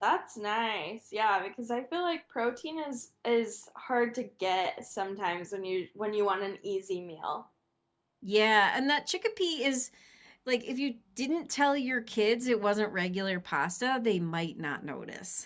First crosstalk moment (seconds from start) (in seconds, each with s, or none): none